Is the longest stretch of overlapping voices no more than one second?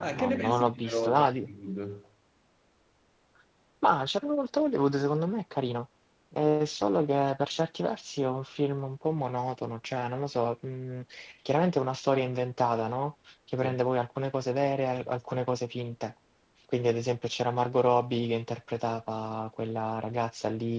No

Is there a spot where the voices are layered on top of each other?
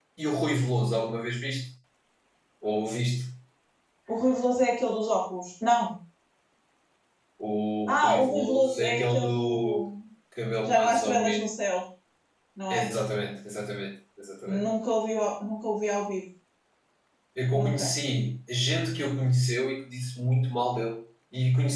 Yes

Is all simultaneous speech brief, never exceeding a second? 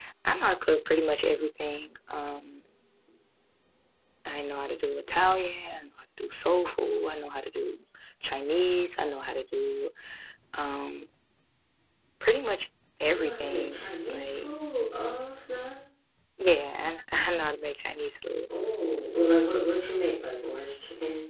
No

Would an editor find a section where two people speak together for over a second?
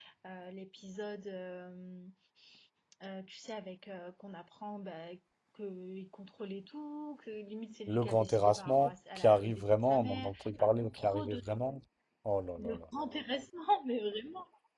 Yes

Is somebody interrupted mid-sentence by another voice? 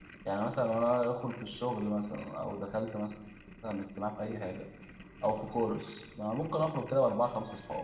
No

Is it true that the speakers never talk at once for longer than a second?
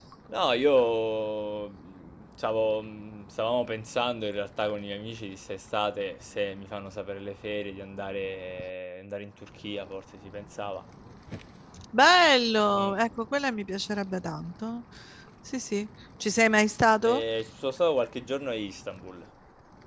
Yes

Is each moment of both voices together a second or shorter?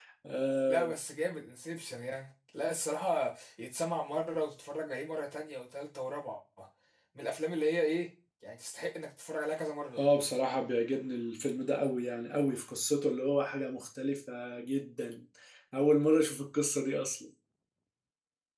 Yes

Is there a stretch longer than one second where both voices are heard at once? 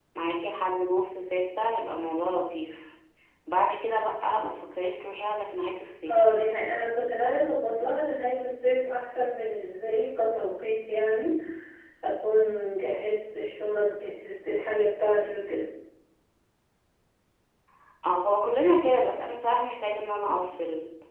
No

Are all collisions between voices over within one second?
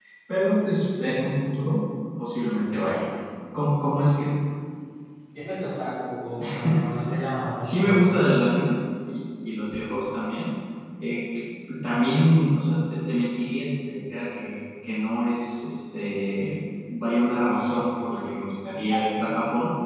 Yes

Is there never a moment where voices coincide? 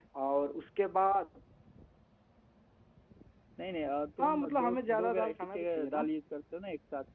No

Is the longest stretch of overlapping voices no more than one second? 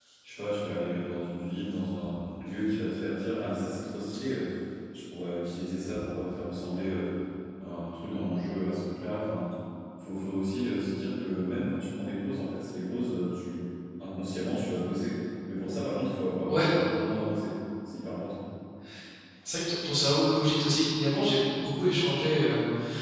Yes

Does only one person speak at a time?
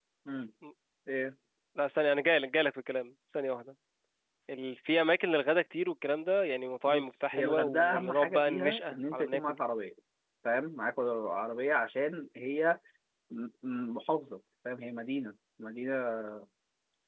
No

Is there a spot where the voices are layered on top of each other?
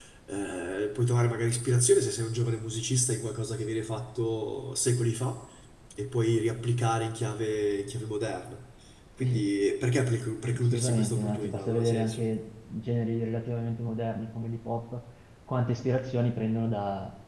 Yes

